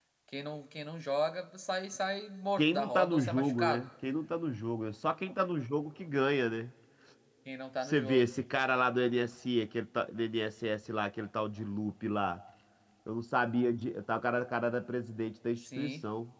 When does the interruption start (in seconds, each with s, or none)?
2.6 s